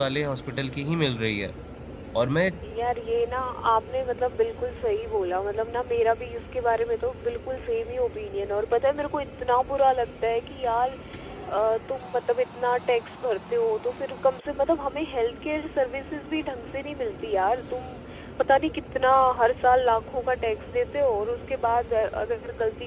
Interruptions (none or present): none